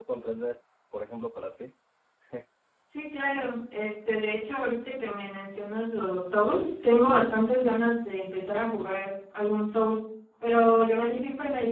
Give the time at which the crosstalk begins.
none

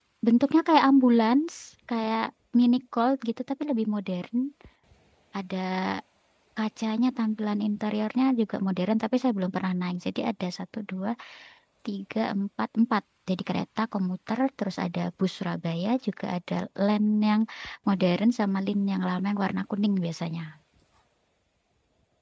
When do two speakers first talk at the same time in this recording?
none

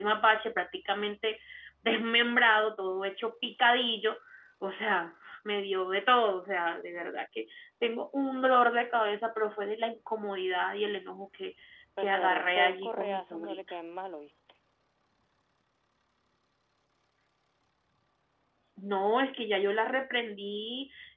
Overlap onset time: 12.0 s

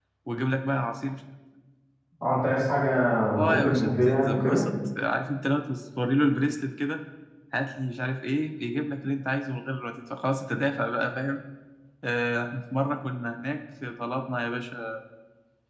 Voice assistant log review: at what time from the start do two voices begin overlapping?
3.4 s

